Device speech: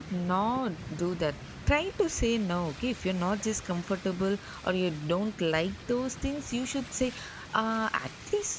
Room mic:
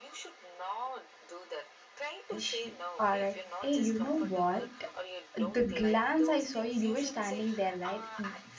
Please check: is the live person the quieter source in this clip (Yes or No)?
No